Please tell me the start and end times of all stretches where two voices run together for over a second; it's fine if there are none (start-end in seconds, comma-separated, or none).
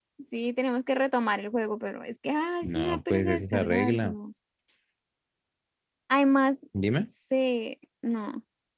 2.6-4.2